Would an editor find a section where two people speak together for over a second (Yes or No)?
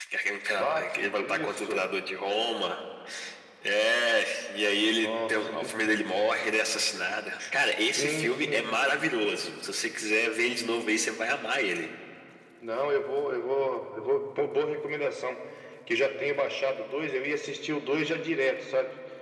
Yes